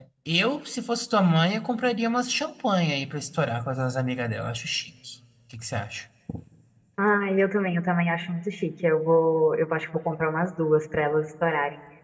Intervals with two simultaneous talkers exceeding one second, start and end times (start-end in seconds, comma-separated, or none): none